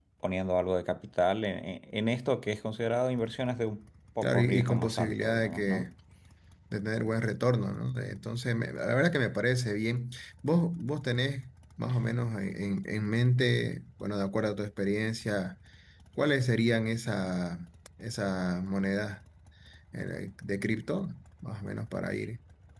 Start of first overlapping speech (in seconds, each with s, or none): 4.2 s